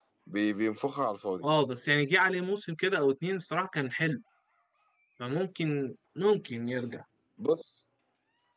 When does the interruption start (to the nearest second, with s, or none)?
none